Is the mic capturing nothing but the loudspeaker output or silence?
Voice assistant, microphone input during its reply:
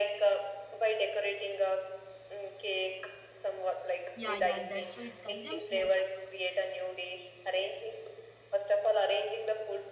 No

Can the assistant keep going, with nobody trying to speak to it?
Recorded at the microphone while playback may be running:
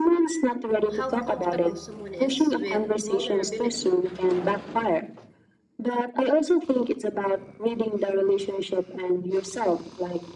No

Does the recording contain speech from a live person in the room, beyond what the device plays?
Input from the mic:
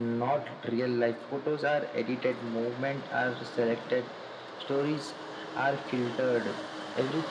No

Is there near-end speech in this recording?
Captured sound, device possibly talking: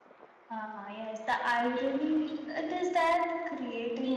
Yes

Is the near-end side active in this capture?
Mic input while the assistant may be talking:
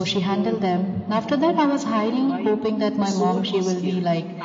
Yes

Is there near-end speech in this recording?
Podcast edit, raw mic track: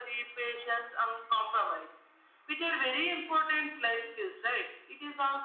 No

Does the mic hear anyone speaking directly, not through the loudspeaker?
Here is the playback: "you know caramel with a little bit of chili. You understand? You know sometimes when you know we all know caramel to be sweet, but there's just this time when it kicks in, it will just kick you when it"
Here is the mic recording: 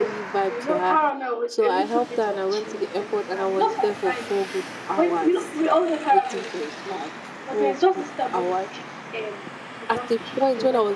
Yes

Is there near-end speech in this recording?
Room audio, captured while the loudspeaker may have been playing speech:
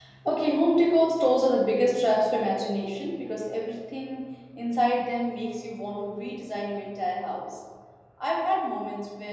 Yes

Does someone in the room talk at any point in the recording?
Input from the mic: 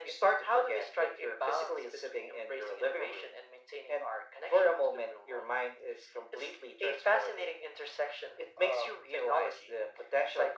No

